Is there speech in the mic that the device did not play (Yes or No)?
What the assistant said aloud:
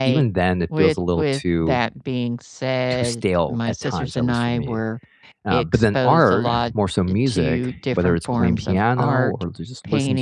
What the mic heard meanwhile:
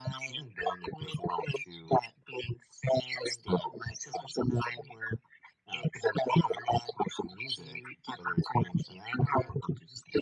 No